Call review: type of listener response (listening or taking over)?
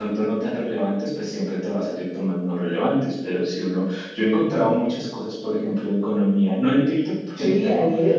taking over